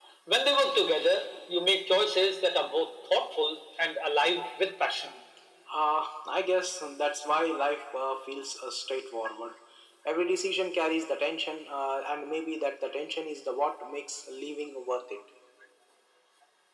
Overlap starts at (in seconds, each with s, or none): none